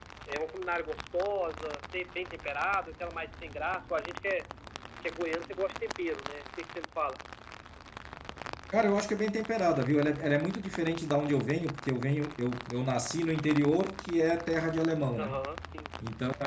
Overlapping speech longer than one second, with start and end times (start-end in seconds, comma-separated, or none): none